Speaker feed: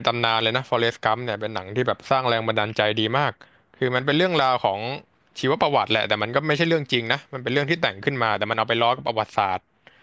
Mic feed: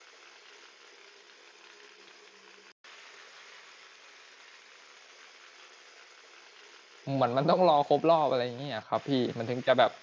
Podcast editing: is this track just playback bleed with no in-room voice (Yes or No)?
No